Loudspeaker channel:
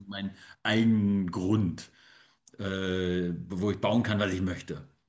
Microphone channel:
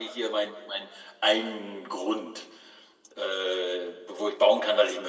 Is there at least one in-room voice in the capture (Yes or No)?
No